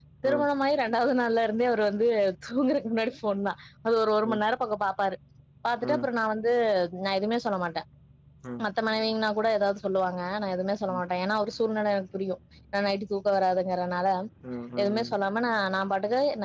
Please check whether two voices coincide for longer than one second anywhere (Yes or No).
No